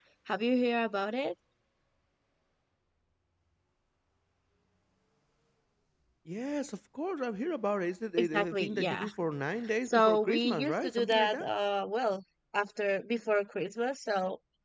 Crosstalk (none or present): present